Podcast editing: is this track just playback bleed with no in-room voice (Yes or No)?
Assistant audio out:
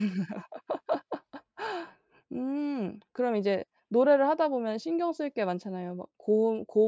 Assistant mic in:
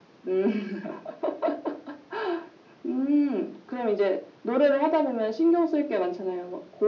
Yes